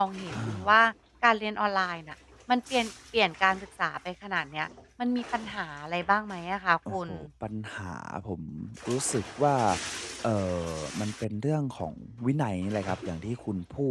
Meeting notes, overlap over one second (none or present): none